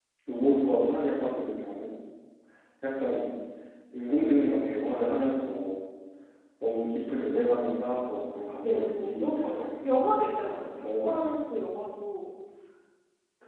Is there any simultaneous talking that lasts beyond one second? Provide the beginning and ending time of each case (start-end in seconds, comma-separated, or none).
8.6-9.8